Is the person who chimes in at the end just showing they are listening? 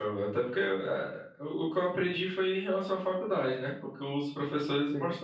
Yes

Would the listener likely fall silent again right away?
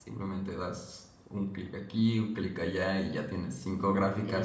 Yes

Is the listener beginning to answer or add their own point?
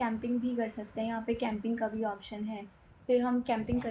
No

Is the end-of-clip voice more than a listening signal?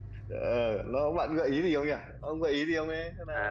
Yes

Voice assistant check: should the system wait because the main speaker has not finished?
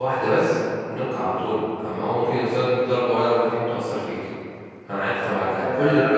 No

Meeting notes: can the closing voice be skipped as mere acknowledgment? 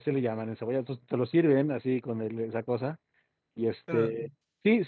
Yes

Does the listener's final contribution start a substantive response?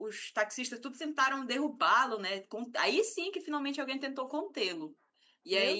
No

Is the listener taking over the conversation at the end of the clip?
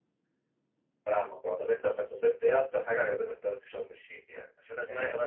No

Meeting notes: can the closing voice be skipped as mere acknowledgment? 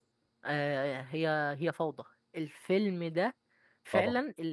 Yes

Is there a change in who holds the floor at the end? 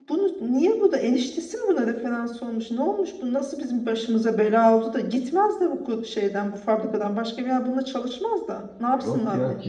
Yes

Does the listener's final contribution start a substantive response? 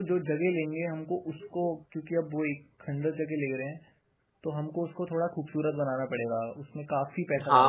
Yes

